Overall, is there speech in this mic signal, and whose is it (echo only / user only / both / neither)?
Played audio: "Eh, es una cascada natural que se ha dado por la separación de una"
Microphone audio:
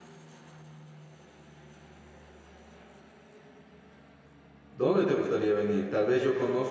user only